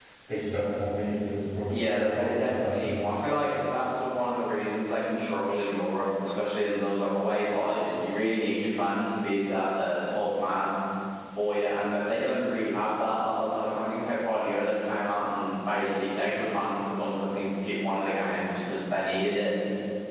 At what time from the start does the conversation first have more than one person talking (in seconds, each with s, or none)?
1.7 s